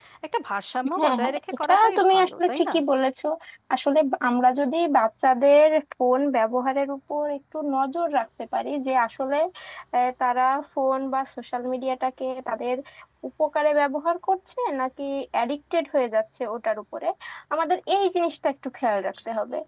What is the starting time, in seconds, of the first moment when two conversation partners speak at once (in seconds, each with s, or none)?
1.0 s